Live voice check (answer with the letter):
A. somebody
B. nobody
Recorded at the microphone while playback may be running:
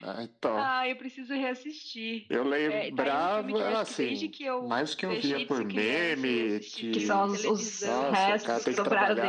A